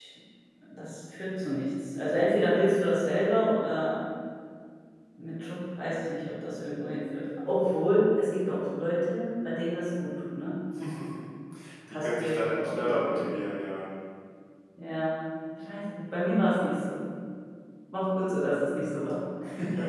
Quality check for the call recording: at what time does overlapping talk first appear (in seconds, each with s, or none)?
11.9 s